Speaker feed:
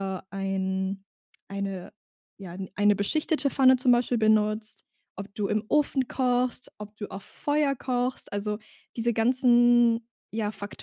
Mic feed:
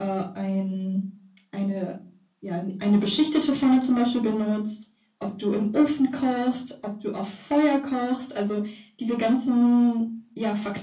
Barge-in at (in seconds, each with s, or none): none